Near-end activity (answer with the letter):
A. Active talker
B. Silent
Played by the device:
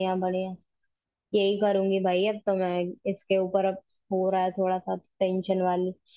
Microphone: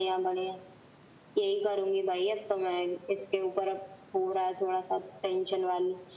B